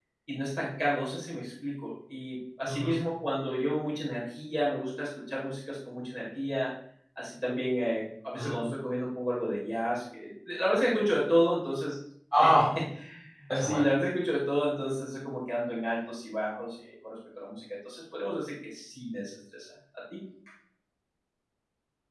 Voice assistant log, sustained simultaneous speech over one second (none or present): none